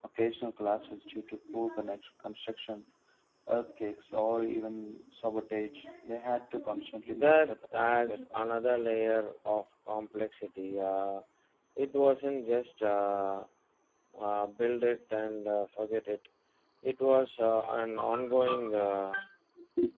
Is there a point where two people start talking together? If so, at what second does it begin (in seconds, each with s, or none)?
7.1 s